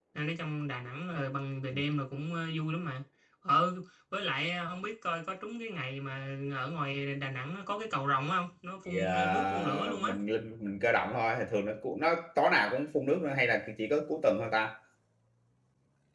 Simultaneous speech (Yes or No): Yes